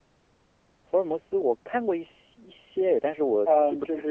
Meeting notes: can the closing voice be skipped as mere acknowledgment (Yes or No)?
No